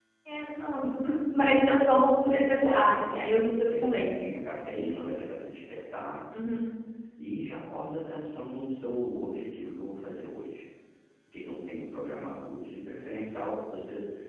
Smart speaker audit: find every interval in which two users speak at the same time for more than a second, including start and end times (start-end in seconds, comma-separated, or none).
2.6-4.3